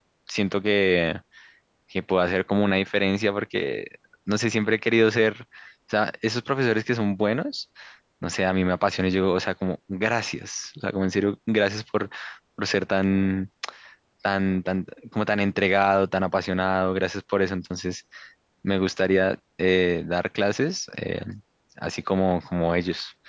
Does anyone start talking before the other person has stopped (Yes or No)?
No